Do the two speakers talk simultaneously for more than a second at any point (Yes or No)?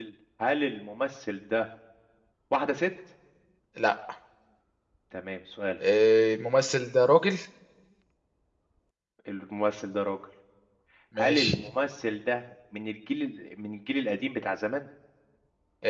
No